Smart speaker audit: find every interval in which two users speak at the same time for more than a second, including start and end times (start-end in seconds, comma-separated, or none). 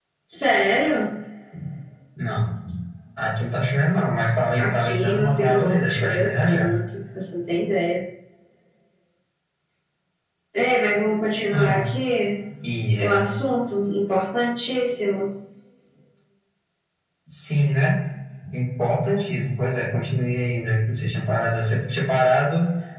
4.6-6.7